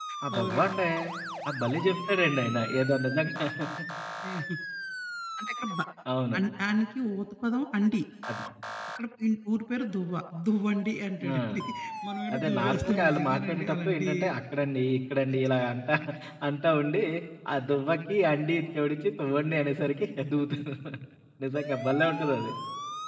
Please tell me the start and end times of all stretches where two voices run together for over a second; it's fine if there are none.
12.3-14.1

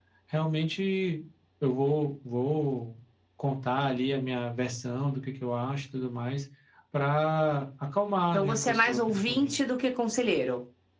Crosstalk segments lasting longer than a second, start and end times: 8.3-9.6

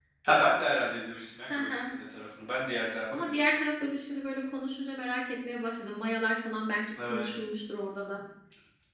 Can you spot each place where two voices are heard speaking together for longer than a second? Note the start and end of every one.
none

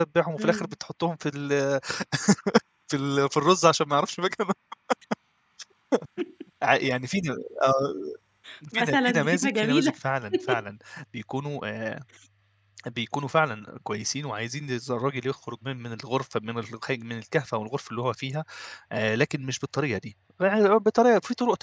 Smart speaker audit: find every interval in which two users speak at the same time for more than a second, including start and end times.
8.7-9.9

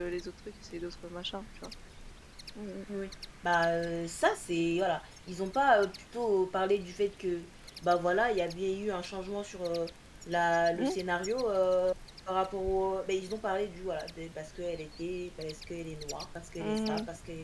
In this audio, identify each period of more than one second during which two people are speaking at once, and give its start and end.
none

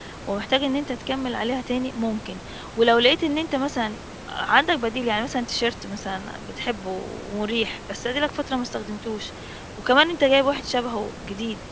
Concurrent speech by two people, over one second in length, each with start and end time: none

